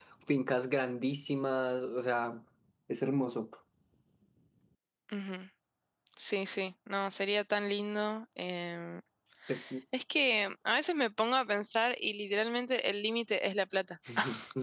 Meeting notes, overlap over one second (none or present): none